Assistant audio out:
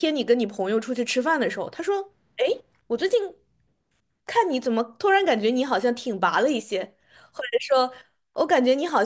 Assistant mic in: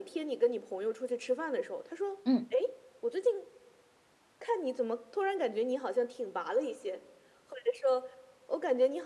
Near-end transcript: 嗯，

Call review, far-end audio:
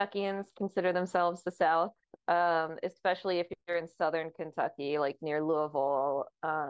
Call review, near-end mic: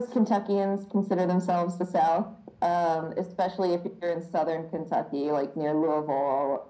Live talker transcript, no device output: none

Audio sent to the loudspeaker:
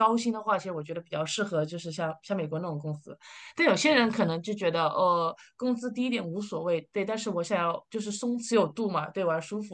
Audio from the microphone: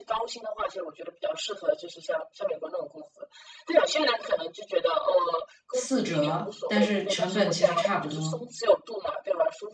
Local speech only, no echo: 四折，但是成本其实差不多。

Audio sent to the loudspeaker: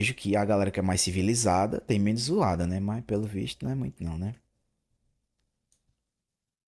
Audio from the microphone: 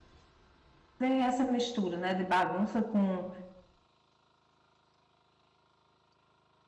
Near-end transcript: tem essa mistura, né, de bagunça com,

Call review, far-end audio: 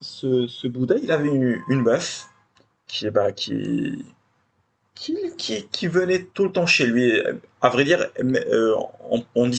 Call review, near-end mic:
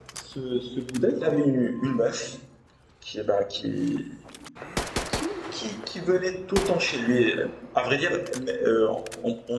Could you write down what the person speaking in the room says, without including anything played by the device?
none

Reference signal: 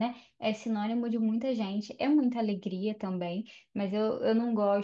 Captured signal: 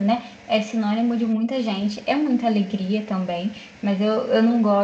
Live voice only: none

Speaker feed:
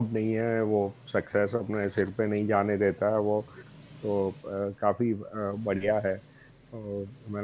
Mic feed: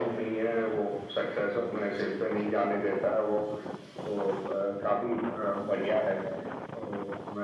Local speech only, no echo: none

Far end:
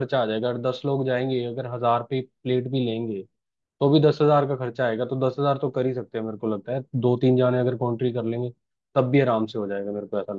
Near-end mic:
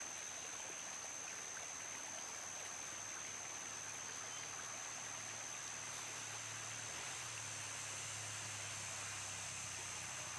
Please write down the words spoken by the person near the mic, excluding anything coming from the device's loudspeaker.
none

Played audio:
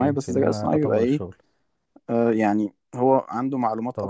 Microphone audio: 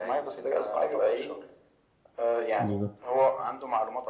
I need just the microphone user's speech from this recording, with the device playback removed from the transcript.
بالظبط

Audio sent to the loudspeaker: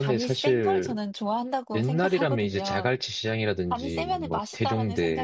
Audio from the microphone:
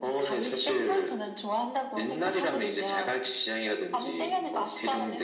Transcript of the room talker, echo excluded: none

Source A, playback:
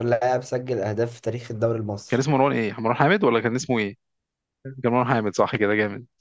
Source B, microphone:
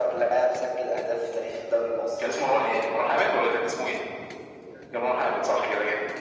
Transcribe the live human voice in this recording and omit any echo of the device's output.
none

